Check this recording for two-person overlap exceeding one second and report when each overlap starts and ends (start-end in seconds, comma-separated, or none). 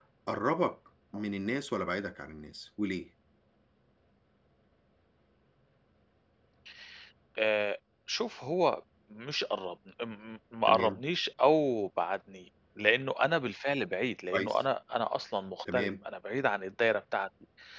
none